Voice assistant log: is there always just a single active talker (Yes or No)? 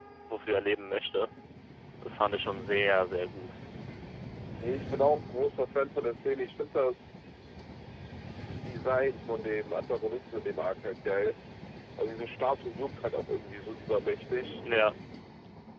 Yes